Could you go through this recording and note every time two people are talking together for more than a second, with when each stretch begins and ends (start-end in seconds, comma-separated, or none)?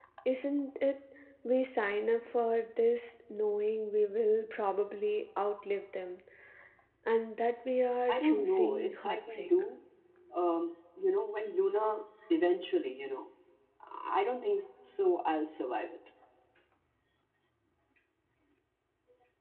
8.1-9.5